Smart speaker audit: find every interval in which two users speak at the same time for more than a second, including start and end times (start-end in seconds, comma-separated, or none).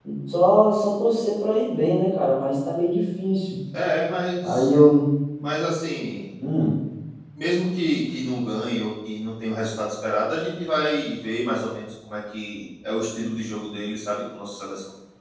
none